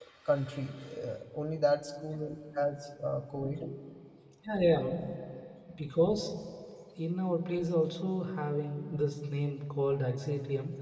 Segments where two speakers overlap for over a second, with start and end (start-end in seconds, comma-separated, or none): none